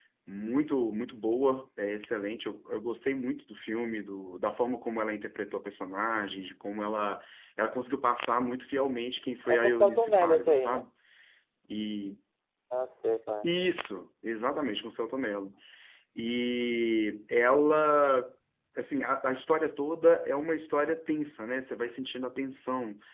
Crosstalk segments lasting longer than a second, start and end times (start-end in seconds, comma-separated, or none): 9.5-10.8